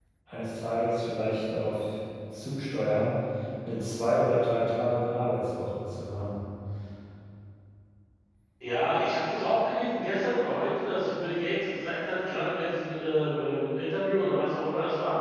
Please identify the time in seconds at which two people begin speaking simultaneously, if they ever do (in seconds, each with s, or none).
none